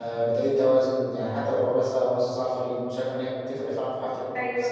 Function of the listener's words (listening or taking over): taking over